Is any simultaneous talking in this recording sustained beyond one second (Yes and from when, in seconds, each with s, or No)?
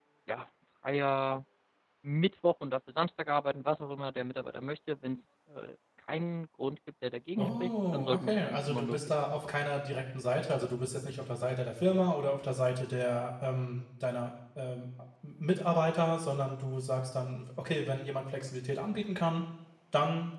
Yes, from 7.4 s